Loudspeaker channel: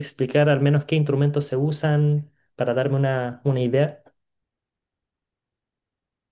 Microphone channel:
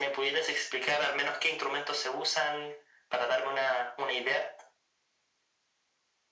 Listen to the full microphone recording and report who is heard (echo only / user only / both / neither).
echo only